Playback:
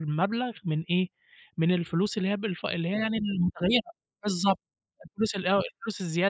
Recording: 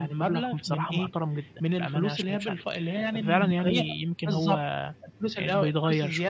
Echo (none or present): present